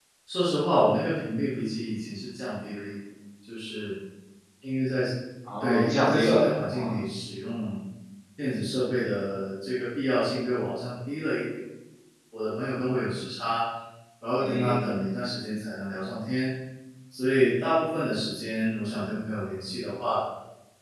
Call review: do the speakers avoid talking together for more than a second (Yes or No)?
No